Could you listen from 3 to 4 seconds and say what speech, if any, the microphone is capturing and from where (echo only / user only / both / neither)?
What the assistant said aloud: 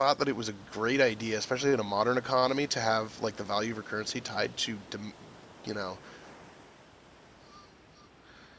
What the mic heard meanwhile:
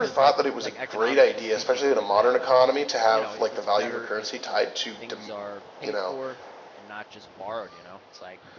both